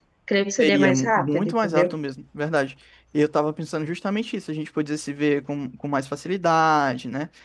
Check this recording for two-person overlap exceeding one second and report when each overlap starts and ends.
0.6-2.0

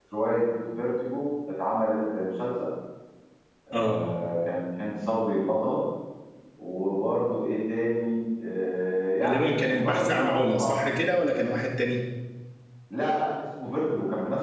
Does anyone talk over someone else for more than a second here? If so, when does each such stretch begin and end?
9.2-11.0

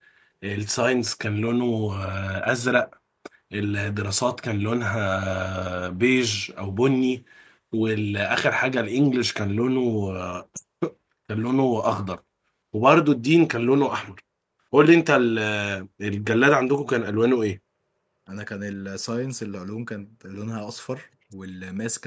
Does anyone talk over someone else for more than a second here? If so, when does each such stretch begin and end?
none

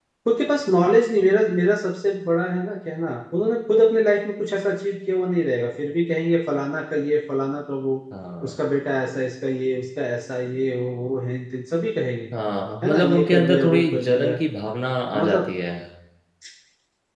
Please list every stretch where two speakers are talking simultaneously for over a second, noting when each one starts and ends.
12.8-14.4

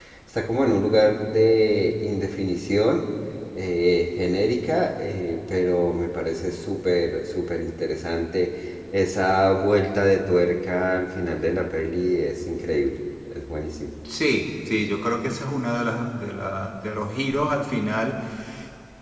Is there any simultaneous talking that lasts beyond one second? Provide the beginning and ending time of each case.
none

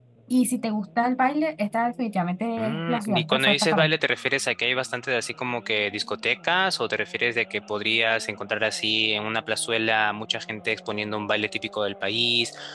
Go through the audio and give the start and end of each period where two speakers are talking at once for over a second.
2.6-4.0

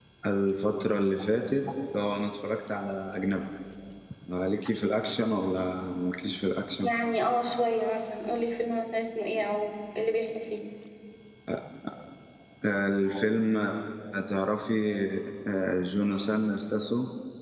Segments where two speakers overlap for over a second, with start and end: none

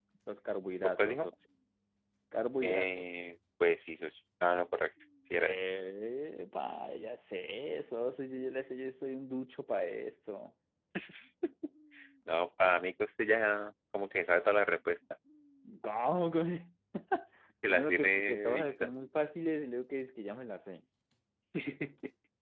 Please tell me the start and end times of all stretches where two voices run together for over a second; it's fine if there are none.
17.6-18.9

